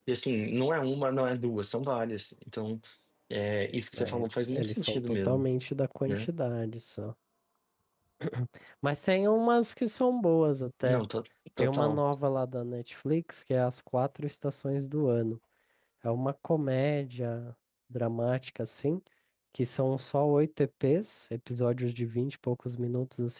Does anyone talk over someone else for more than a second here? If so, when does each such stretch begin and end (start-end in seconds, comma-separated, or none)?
4.0-5.5